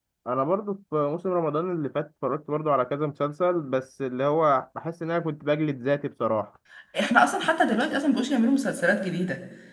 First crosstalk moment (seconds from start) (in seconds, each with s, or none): none